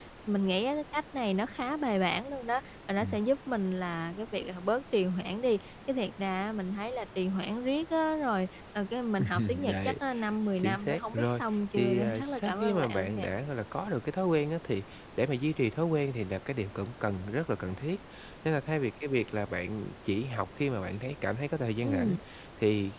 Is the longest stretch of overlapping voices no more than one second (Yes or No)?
No